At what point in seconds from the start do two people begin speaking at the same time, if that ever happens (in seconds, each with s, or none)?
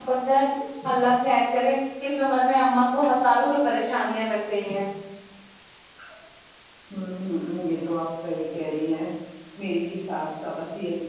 none